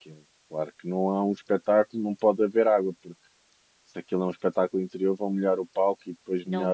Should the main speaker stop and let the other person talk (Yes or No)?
Yes